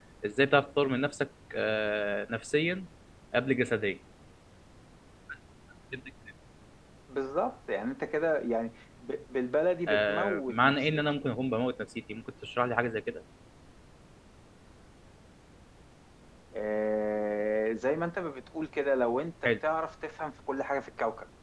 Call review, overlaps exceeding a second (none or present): present